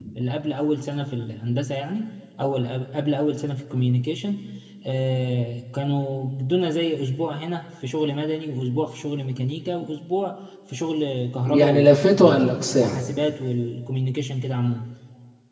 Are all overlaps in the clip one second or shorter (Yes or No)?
No